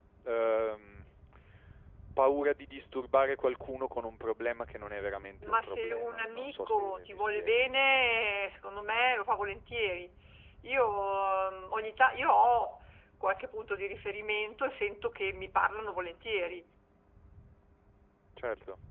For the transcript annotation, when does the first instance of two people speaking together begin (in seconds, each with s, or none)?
5.4 s